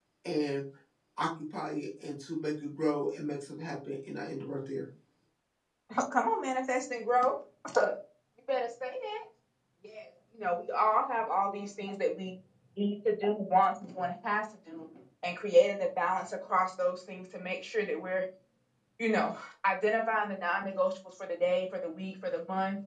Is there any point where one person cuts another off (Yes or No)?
No